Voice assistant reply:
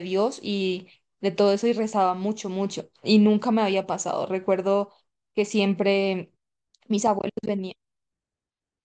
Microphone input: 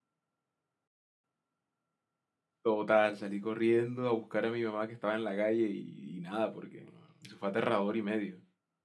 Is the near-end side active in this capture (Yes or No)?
Yes